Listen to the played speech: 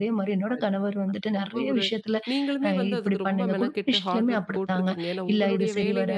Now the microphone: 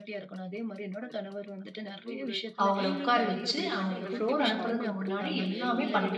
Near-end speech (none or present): present